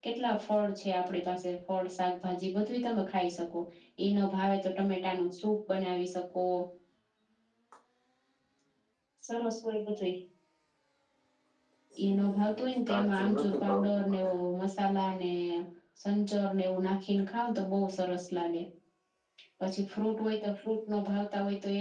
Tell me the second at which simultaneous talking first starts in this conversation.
12.0 s

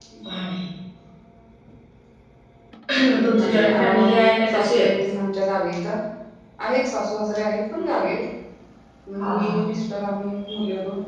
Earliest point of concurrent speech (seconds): 3.1 s

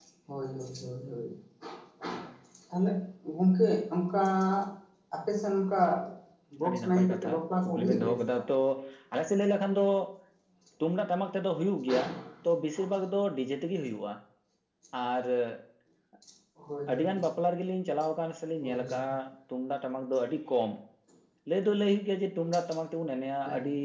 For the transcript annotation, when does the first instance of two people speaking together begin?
6.7 s

